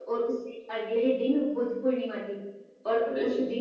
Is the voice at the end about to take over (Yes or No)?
No